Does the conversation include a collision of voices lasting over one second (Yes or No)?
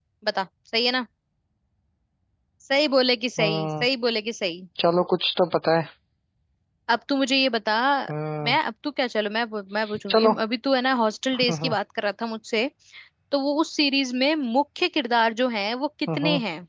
No